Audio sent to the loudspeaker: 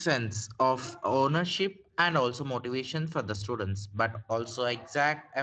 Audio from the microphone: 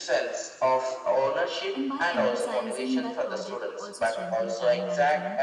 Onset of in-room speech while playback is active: 1.7 s

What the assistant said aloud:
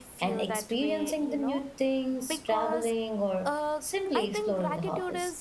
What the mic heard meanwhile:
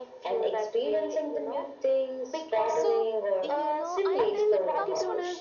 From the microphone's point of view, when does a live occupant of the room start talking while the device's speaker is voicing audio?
2.6 s

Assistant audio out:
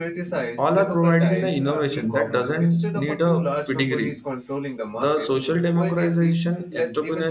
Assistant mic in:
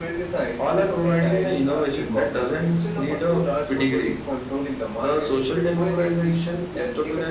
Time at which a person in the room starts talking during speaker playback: none

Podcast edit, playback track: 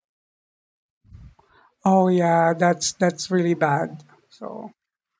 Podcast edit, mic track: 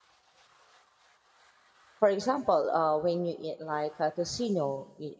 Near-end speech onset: 2.0 s

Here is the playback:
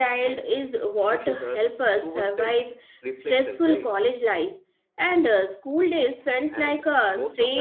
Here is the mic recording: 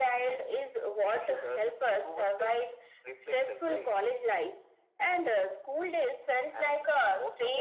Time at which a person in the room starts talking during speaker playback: none

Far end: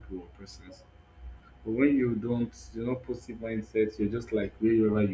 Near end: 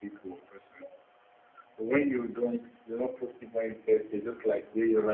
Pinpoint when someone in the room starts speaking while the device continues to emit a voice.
none

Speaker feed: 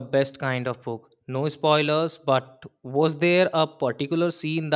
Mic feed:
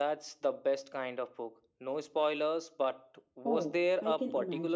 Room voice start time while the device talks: 3.4 s

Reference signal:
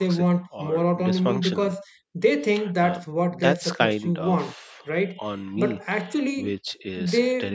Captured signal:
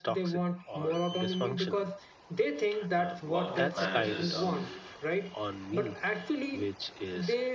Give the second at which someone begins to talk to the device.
3.2 s

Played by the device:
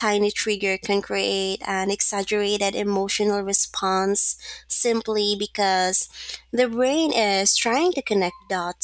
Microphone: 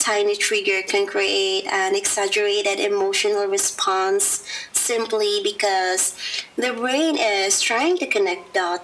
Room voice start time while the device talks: none

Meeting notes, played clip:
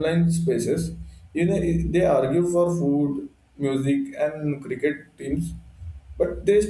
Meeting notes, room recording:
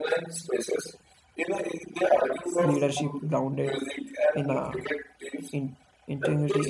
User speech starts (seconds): 2.6 s

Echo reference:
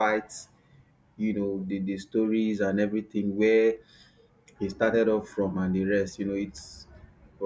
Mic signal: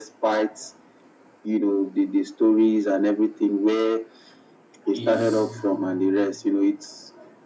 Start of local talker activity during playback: 4.9 s

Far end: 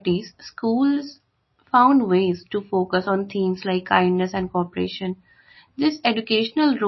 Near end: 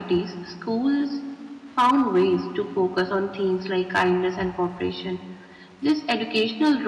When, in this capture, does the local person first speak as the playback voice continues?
none

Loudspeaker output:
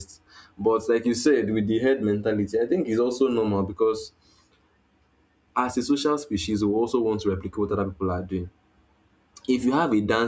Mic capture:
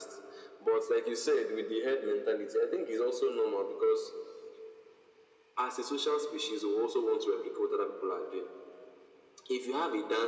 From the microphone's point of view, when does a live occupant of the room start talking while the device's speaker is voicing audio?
none

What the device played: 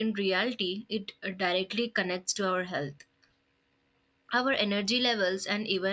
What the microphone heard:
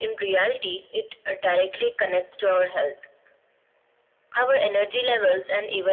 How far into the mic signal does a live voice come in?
none

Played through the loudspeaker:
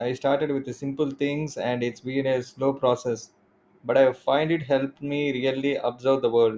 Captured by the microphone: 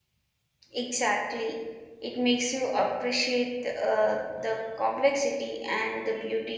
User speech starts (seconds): 0.7 s

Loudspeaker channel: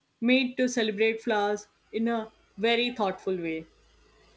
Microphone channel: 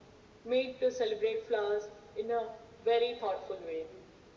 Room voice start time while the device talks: none

